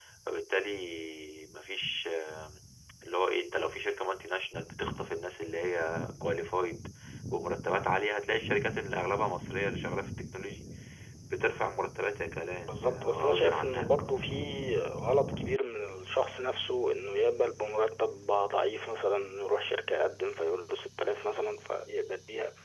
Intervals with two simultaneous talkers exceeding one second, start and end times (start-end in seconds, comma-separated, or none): 12.5-13.9